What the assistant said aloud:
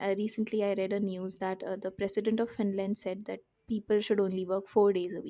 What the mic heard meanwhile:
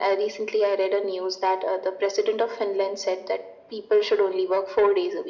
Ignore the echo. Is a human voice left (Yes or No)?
No